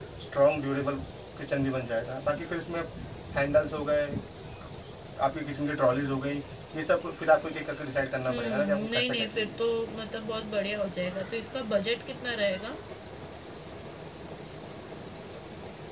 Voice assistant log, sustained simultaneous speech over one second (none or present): present